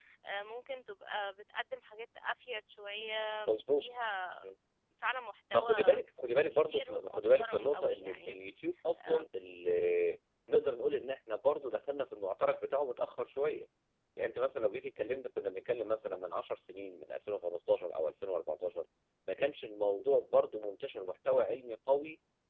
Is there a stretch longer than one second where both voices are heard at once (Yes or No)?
Yes